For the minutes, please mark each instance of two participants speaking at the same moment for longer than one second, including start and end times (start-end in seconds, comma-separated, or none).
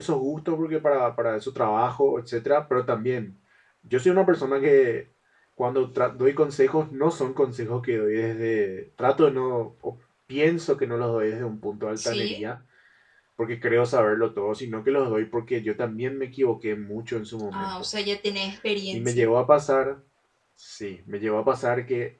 none